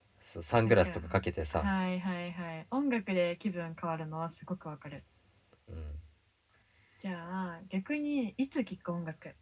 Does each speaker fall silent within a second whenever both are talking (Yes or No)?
Yes